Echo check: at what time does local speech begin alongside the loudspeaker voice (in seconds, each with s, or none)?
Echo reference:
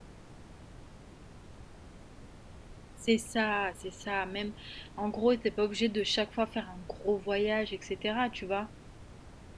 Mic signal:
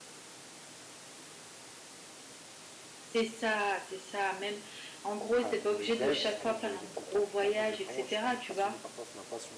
5.3 s